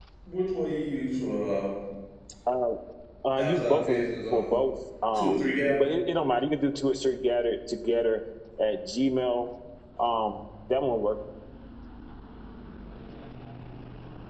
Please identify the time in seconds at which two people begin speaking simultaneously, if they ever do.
3.4 s

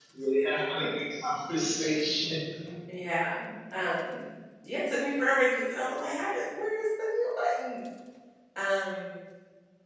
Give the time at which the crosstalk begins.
none

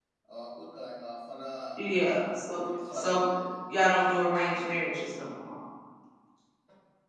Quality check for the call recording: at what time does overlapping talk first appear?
1.8 s

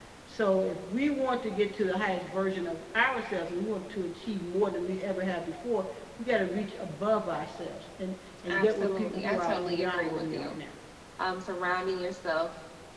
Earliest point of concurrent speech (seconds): 8.4 s

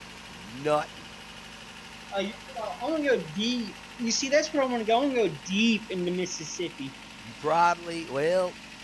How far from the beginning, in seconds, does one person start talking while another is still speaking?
none

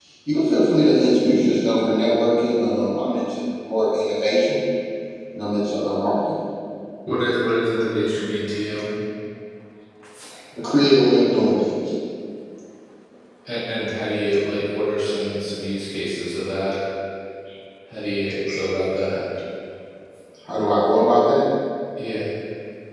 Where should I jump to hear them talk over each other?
none

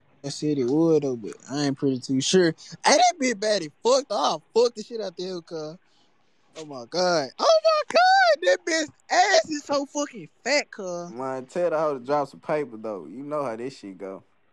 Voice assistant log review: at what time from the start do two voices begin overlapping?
none

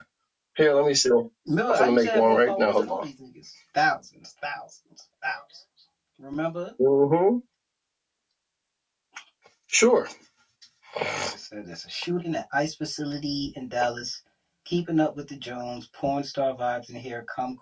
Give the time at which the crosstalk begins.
1.8 s

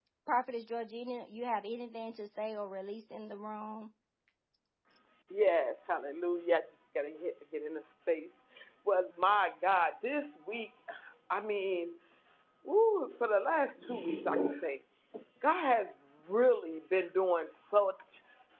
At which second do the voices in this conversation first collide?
none

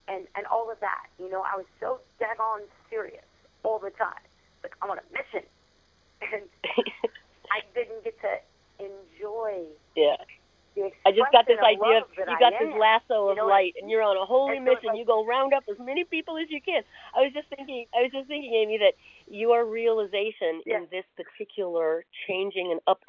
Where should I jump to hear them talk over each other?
11.0 s

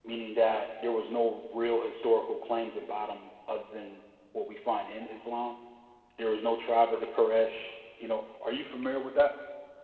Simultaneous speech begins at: none

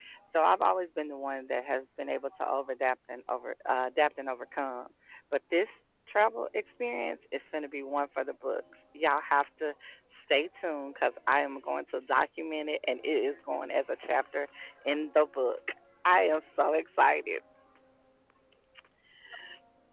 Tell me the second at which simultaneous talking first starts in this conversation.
none

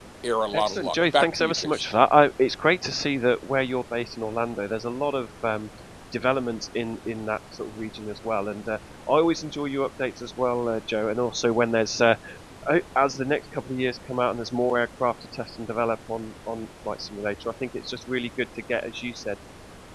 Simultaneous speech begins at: 0.6 s

